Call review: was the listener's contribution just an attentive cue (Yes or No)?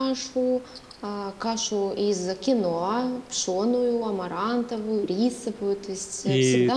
No